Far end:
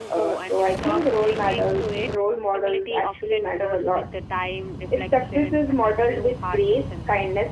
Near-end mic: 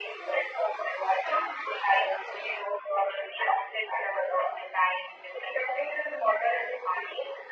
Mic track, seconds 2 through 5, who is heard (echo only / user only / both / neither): echo only